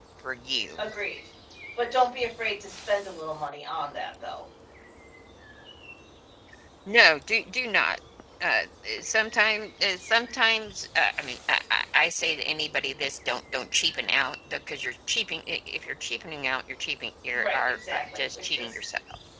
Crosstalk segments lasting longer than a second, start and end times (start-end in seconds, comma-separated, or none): 17.3-18.8